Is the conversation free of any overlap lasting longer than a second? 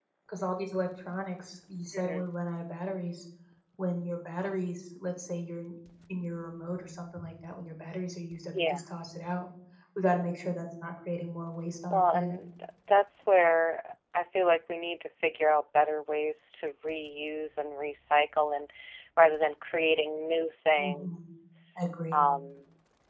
Yes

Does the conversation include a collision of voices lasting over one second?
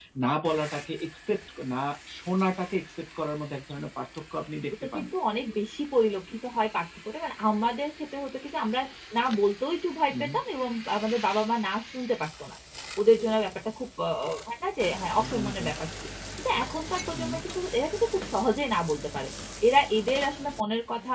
No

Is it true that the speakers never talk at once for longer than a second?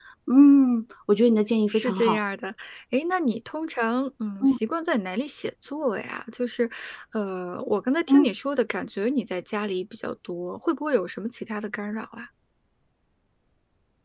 Yes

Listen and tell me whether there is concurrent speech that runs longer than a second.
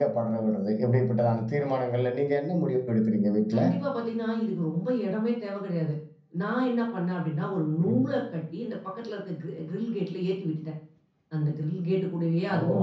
No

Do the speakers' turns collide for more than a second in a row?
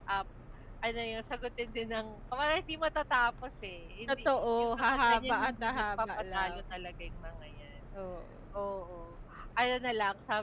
Yes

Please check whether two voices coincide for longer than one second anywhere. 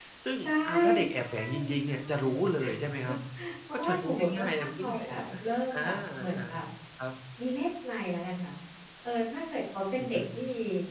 Yes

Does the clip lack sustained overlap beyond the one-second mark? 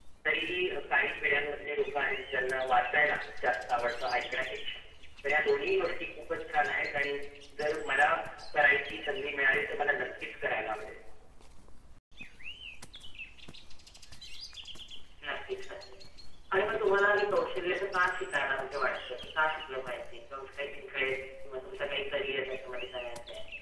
Yes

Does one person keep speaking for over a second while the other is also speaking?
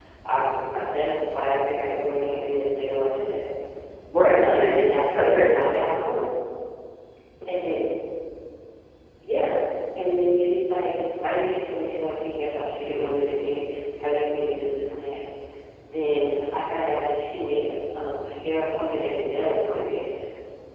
Yes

